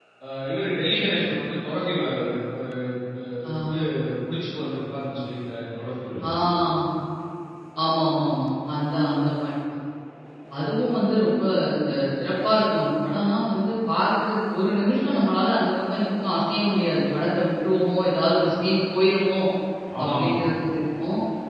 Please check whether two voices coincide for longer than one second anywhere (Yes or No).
No